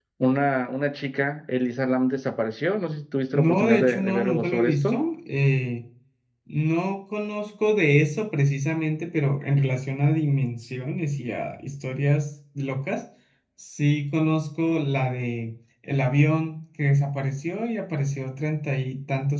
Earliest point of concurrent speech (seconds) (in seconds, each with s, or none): 3.3 s